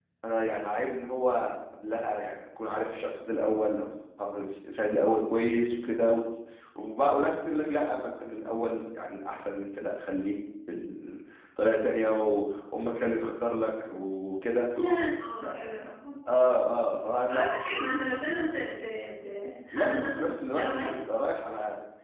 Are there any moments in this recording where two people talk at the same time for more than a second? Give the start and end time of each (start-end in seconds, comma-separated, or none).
19.7-21.0